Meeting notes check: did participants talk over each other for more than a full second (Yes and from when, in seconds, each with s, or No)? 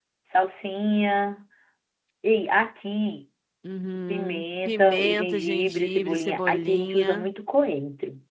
Yes, from 4.1 s